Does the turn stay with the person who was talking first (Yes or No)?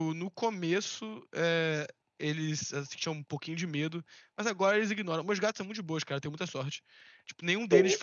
Yes